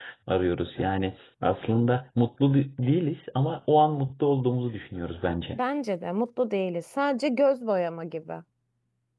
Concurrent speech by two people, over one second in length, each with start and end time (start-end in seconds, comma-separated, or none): none